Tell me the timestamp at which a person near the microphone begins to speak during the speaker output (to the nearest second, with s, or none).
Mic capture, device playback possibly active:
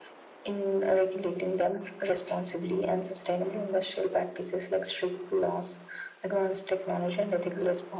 none